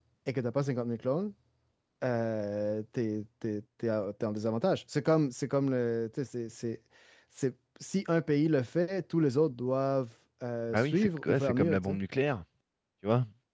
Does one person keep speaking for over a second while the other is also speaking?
Yes, from 10.7 s

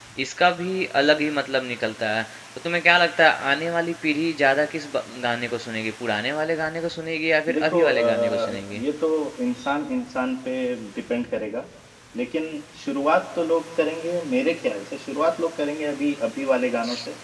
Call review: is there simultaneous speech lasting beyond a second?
Yes, from 7.5 s

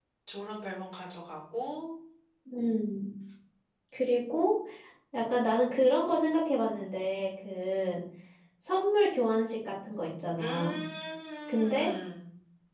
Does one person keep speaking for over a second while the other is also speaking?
No

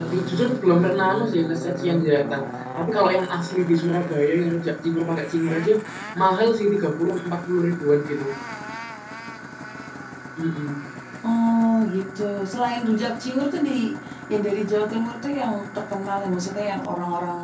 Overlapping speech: No

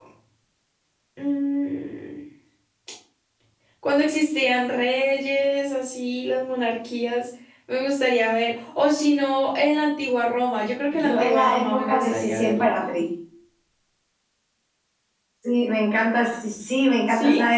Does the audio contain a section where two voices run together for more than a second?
Yes, from 10.9 s

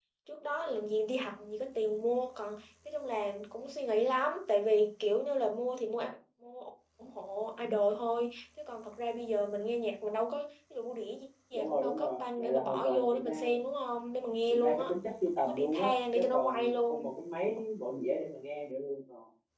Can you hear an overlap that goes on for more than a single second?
Yes, from 11.5 s

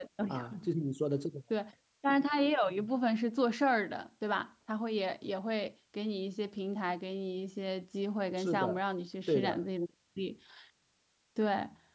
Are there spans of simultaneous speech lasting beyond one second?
No

